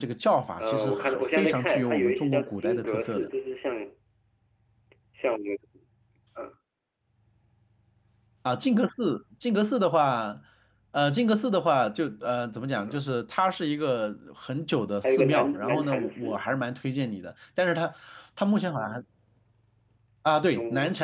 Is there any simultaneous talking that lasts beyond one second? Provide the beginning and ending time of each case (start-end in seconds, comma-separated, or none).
0.6-3.3, 15.0-16.4